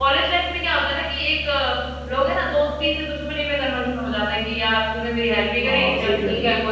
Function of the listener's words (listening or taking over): taking over